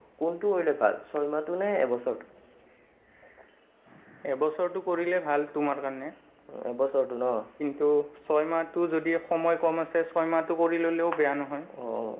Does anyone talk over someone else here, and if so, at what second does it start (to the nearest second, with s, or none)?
none